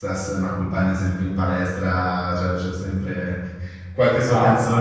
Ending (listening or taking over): listening